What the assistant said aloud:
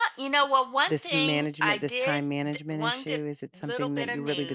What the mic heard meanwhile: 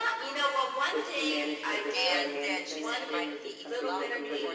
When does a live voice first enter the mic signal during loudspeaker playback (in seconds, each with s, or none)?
1.9 s